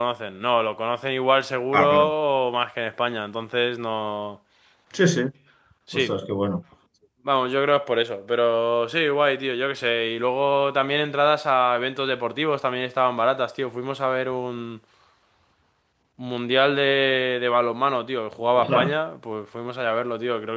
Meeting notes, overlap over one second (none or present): none